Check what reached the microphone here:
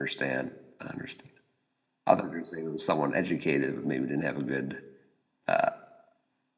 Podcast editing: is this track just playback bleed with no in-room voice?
No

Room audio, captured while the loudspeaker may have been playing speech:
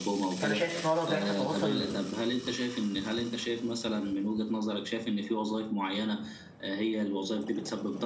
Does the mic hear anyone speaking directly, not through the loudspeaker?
Yes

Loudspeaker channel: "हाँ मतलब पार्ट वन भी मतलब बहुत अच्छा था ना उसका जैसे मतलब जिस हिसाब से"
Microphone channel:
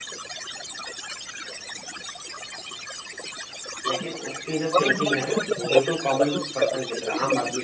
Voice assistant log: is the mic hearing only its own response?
No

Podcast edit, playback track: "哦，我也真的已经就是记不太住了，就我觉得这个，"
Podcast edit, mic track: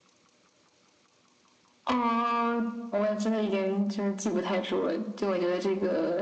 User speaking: No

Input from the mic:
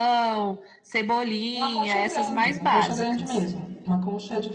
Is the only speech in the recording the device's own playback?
No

